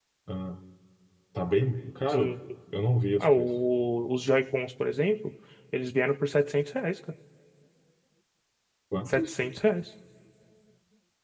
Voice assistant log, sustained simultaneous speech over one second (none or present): none